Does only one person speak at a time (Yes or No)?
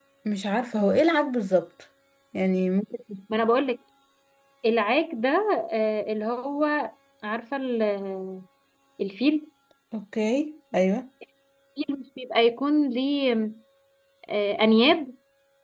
Yes